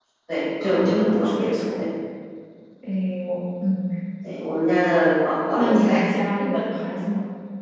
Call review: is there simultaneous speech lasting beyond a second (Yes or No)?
Yes